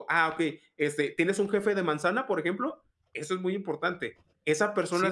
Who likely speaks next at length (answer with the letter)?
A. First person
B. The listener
B